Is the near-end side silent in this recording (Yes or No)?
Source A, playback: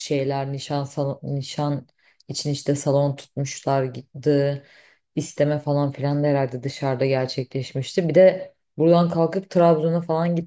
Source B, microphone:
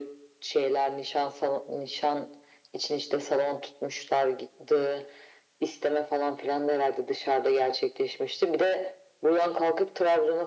Yes